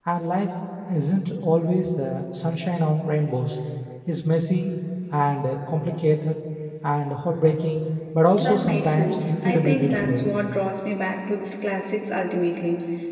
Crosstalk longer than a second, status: present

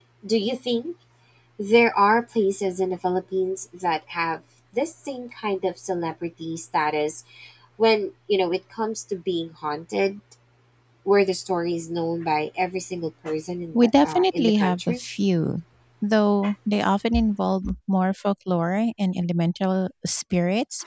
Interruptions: present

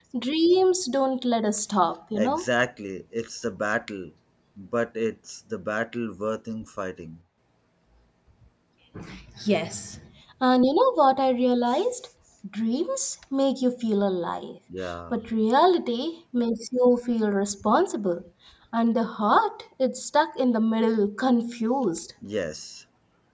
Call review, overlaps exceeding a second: none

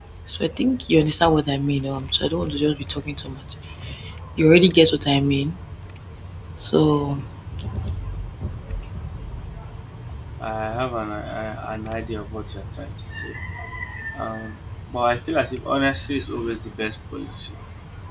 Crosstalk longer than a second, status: none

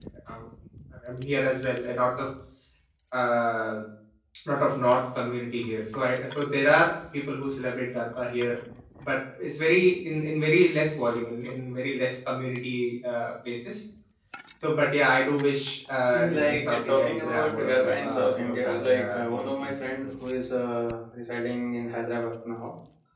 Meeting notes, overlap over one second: present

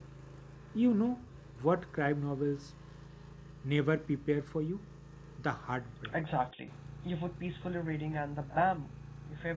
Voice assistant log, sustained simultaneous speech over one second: none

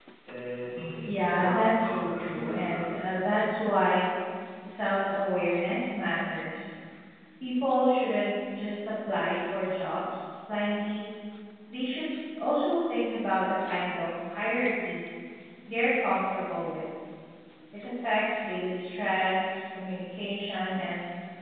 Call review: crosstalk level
present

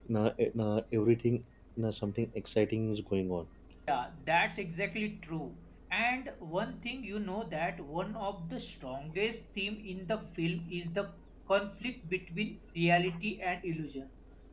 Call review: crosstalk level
none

